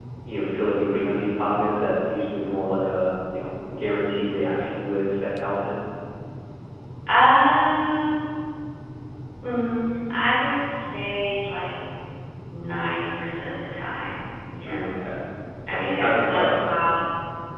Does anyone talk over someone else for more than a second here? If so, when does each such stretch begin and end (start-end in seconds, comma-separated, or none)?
15.7-16.9